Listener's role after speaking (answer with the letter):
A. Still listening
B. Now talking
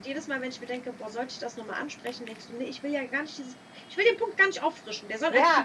B